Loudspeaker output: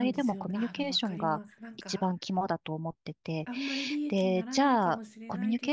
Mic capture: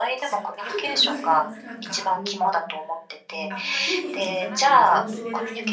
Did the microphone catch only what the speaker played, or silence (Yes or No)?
No